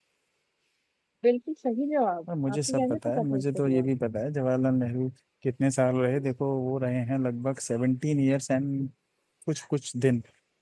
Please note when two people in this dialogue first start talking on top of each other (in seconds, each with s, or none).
2.3 s